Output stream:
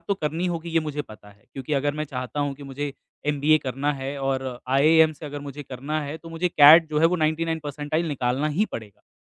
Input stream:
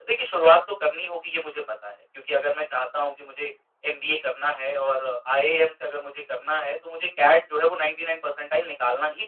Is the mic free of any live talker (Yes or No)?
Yes